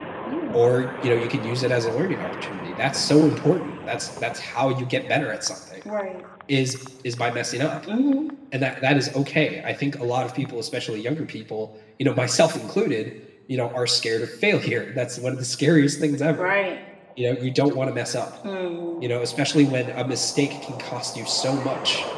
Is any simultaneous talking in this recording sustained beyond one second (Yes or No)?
No